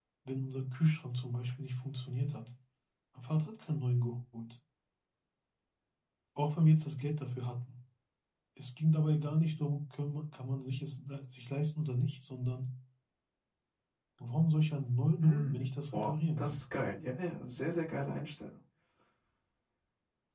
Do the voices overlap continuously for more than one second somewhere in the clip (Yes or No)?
Yes